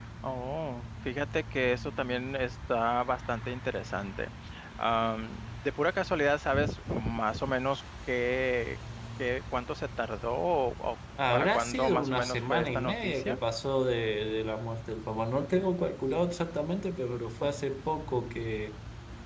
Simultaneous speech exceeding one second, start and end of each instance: 11.3-13.4

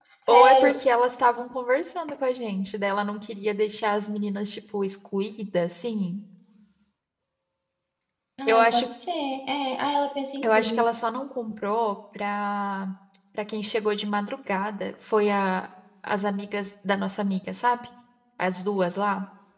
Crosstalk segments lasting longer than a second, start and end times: none

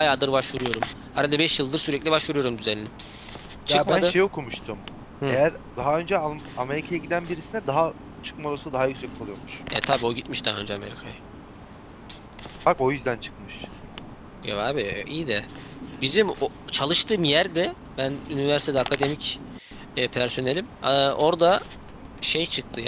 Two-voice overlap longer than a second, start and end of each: none

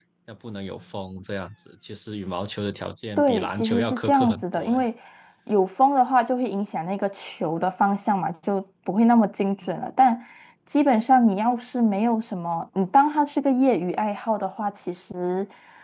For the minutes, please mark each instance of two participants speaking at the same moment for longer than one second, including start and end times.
3.2-4.8

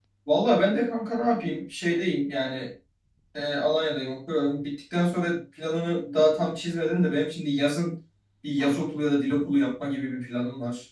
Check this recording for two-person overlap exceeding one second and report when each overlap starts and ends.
none

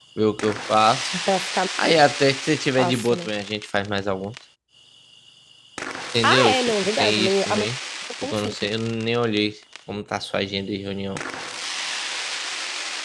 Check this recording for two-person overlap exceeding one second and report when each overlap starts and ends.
6.2-7.7

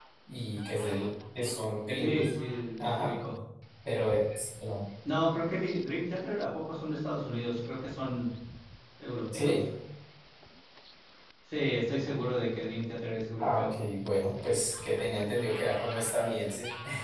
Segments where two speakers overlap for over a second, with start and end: none

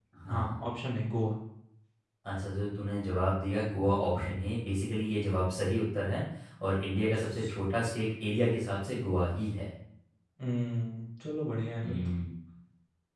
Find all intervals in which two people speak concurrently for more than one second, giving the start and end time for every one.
none

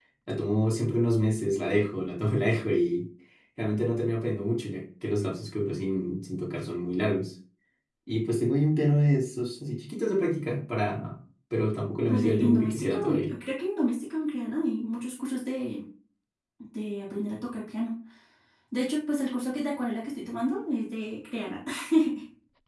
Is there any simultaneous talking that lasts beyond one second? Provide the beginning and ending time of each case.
12.1-13.3

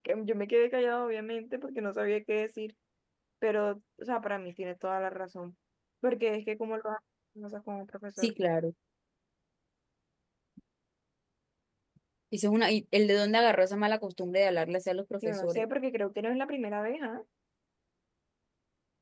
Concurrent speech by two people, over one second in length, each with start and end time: none

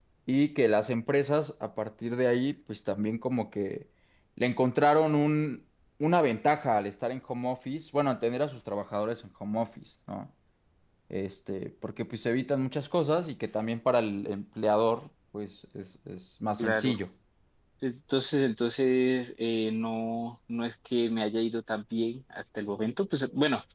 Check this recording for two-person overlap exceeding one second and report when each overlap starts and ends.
none

